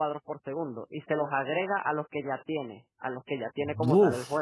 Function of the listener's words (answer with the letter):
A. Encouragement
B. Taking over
A